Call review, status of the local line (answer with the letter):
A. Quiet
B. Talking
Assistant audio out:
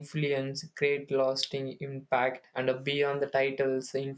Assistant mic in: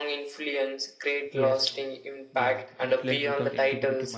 B